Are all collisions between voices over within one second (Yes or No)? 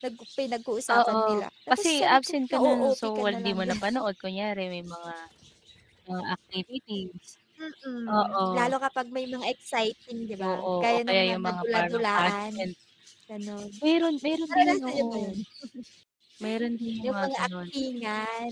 No